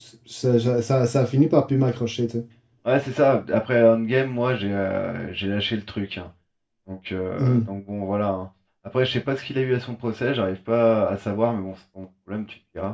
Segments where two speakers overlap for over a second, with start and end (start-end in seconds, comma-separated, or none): none